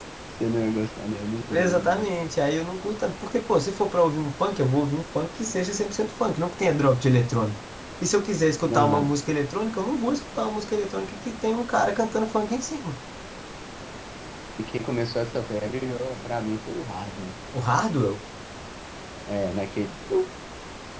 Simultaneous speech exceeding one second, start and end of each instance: none

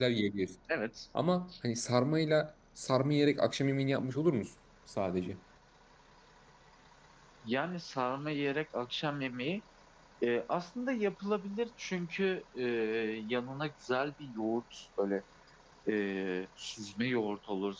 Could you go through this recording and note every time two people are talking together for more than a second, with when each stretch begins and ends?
none

